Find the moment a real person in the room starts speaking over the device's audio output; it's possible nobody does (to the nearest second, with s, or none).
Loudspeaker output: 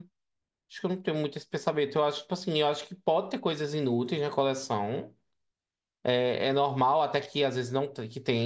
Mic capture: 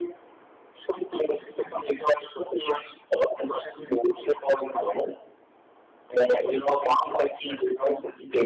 none